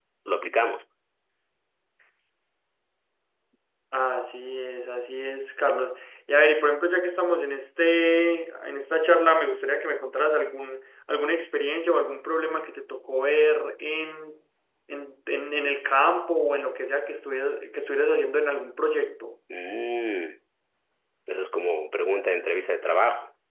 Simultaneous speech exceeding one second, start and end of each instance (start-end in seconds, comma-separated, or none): none